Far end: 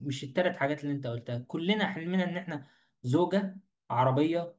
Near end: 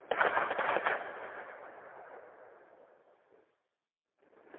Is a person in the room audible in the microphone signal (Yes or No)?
No